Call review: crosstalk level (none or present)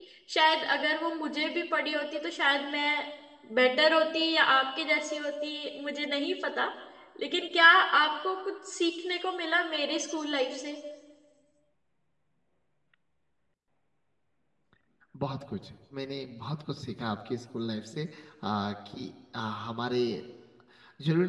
none